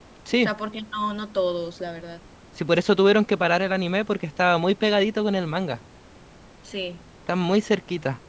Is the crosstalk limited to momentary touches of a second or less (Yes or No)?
Yes